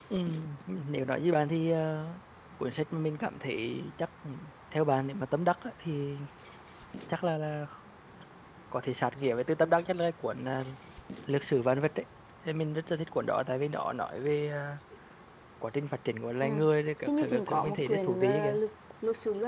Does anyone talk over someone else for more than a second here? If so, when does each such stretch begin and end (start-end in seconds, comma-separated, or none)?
17.1-18.6